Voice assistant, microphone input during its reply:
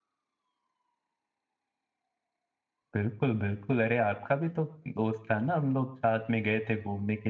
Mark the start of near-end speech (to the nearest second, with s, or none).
3 s